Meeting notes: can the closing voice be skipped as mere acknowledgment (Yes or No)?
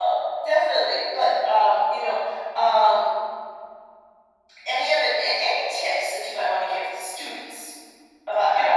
No